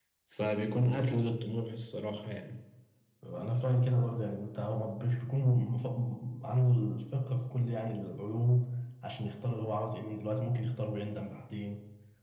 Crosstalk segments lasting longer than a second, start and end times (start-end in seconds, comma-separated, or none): none